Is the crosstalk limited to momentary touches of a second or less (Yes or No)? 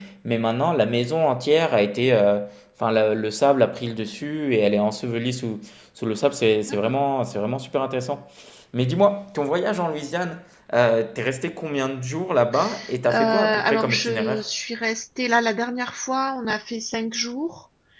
No